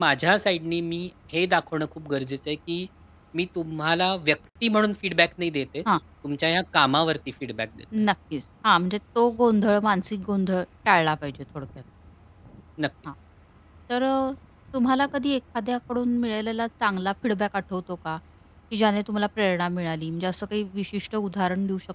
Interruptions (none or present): none